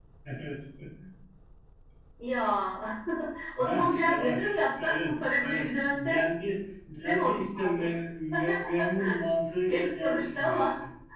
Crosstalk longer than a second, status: present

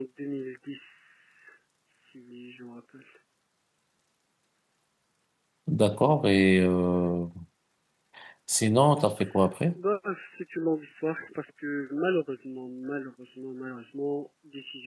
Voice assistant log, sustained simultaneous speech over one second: none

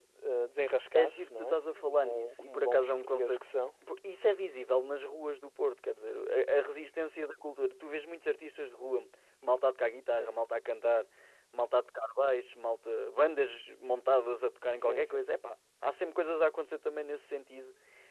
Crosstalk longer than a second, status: present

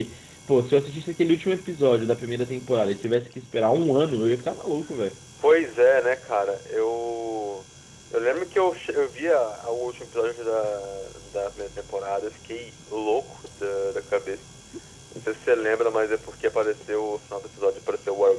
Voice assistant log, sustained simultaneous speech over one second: none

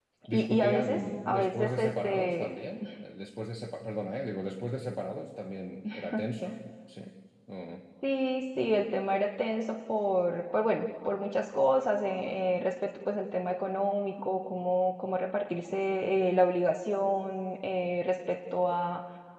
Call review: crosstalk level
present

